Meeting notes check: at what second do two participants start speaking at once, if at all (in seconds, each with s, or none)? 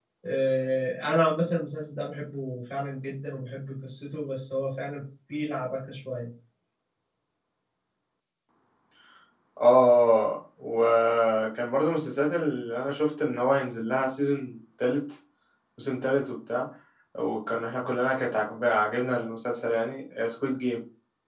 none